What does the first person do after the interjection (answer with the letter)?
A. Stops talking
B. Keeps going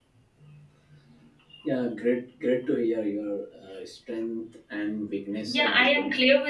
A